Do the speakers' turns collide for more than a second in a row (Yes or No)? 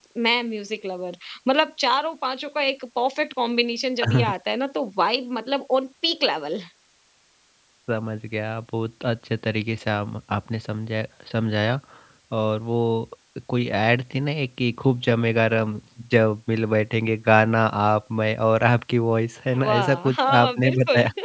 Yes